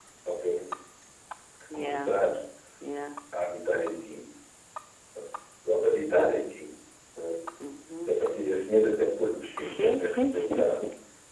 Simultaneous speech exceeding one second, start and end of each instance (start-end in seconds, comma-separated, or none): 9.6-10.8